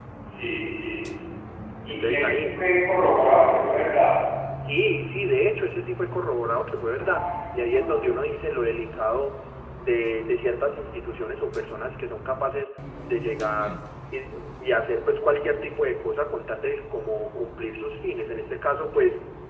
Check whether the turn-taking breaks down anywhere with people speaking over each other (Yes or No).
Yes